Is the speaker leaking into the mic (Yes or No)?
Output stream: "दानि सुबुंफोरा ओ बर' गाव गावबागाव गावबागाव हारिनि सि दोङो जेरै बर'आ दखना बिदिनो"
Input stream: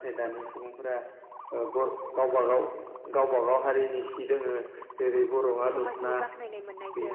Yes